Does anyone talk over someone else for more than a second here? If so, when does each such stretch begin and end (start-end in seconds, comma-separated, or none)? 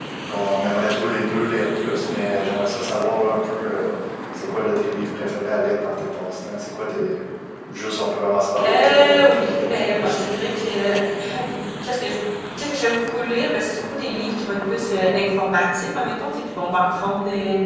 8.7-10.2